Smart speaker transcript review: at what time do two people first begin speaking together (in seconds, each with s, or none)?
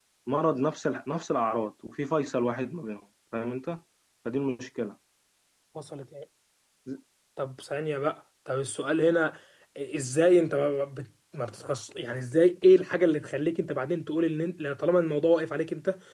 none